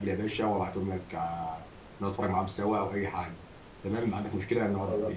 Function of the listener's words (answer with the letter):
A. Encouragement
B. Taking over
A